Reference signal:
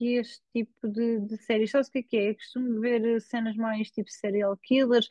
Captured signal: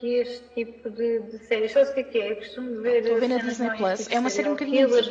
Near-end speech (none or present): present